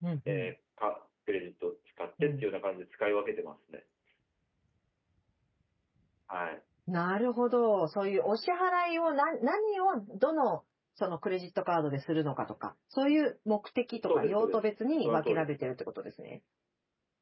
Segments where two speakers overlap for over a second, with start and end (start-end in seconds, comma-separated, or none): 14.0-15.7